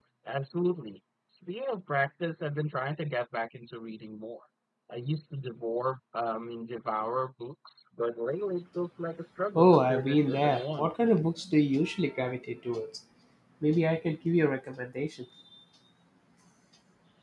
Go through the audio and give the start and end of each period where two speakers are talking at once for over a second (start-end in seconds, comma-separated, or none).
9.6-10.9